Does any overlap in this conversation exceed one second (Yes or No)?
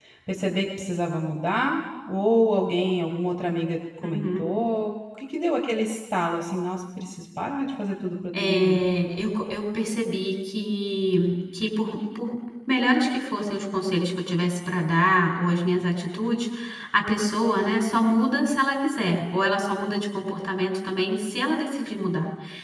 No